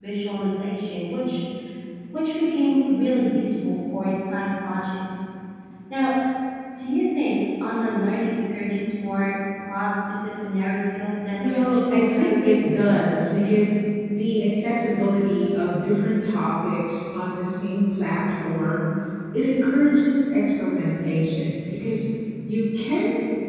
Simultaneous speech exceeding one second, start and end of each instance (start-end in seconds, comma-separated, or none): 11.4-12.7